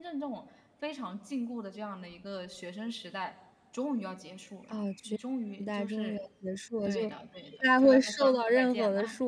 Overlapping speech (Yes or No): Yes